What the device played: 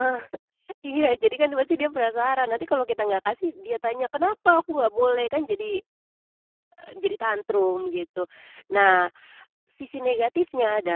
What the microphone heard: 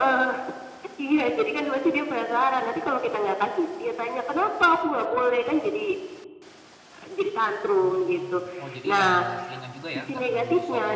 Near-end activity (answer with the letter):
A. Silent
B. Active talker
B